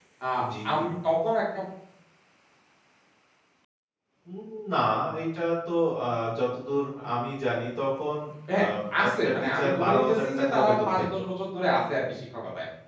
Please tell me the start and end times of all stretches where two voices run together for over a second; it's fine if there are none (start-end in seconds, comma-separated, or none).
9.0-11.1